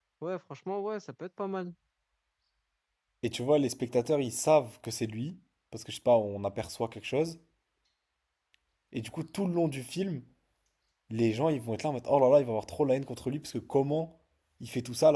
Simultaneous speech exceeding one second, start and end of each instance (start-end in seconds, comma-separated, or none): none